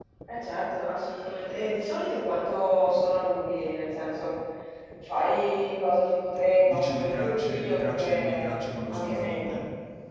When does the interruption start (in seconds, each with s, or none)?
6.6 s